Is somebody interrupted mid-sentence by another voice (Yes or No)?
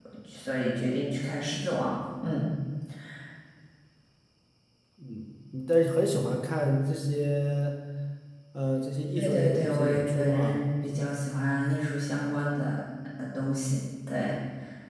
Yes